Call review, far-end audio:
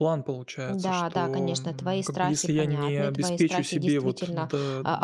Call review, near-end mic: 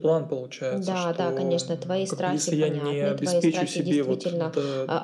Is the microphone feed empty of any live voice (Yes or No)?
Yes